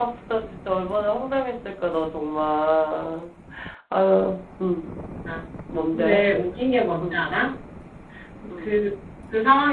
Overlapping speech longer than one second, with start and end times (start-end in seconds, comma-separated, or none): none